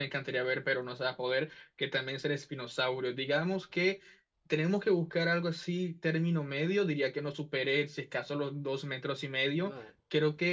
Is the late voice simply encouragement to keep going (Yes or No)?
Yes